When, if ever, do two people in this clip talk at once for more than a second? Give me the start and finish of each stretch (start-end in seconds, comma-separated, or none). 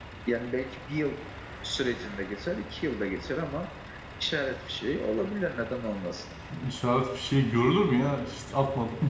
none